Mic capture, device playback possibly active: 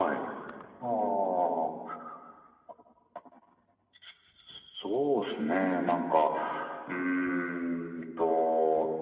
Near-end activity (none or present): present